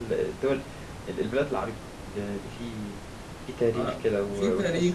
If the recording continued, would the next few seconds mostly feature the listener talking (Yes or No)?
Yes